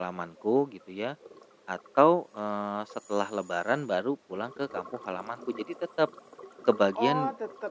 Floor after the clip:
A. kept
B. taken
B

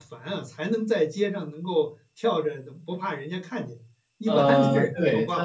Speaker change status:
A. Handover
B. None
A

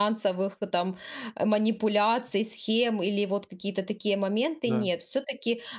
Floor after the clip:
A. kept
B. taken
A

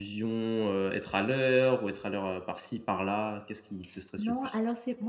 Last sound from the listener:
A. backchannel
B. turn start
B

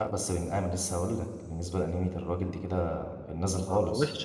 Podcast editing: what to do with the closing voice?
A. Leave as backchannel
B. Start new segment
B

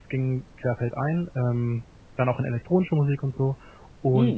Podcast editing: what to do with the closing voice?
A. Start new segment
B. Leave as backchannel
B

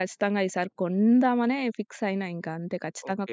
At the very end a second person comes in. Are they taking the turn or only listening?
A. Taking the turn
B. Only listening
A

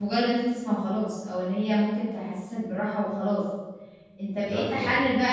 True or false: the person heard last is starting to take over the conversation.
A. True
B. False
B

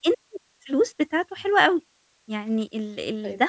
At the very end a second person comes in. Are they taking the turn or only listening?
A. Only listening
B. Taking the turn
A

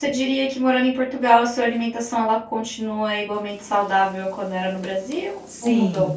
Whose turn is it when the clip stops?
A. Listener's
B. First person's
A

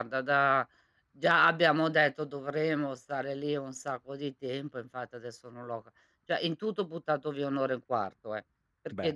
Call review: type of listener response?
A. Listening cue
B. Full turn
A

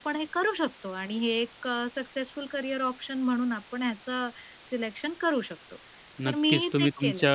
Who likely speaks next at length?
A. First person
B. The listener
B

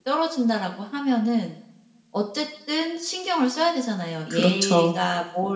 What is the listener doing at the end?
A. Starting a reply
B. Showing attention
B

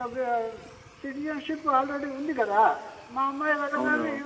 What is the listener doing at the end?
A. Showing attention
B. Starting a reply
A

